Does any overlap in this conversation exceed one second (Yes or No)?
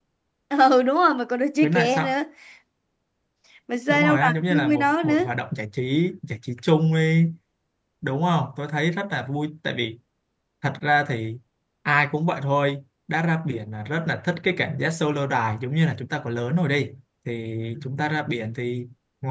Yes